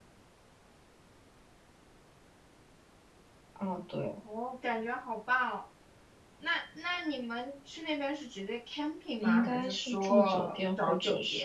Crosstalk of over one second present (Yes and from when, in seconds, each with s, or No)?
Yes, from 9.2 s